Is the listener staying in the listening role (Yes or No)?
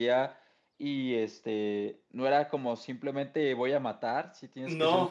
Yes